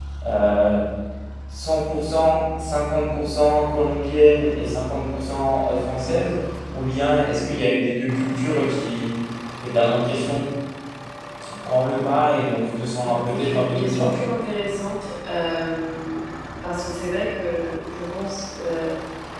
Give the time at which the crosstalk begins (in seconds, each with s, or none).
13.0 s